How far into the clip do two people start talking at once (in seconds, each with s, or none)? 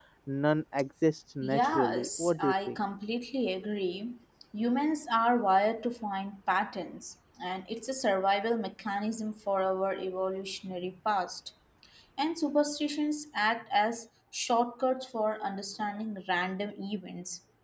1.4 s